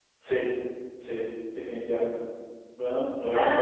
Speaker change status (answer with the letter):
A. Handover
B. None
A